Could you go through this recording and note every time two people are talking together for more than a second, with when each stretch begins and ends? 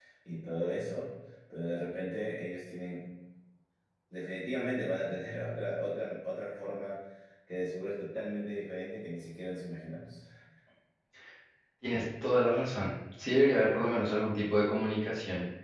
none

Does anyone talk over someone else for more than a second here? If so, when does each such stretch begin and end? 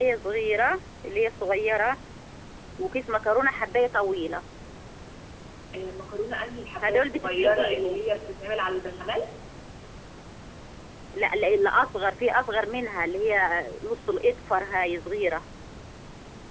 6.8-8.0

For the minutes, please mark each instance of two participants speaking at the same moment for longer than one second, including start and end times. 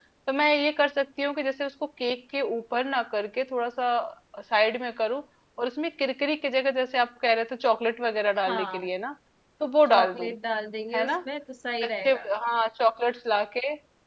none

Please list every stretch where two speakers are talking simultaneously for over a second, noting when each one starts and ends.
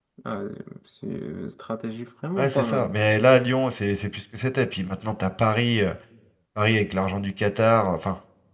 none

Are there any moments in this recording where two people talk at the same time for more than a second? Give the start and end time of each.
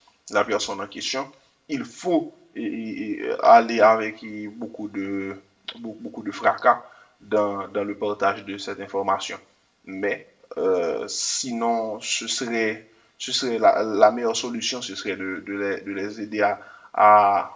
none

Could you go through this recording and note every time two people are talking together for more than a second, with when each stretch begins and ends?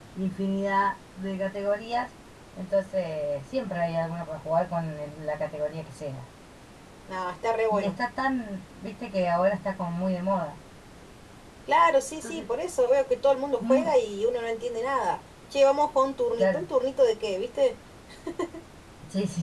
none

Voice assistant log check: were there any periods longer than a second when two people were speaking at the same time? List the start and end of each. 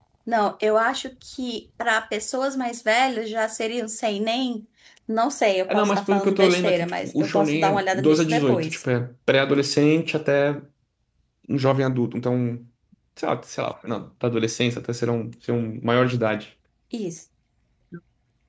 5.7-8.8

